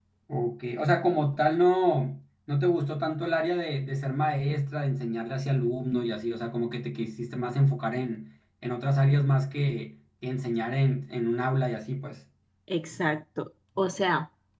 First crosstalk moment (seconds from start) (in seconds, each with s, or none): none